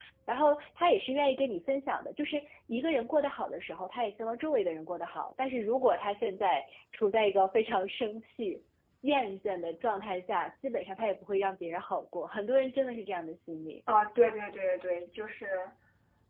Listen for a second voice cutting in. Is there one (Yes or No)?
No